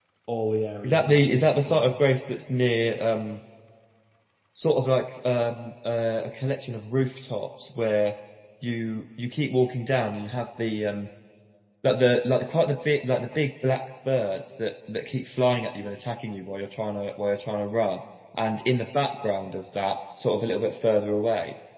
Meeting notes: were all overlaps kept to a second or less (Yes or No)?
No